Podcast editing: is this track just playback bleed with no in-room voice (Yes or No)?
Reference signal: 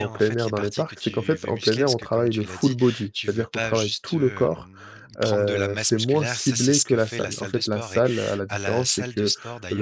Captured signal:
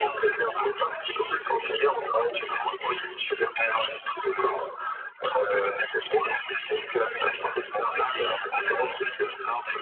Yes